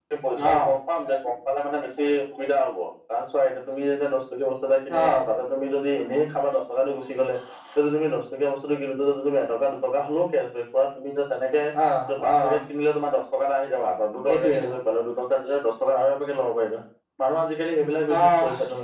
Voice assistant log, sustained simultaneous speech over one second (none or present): none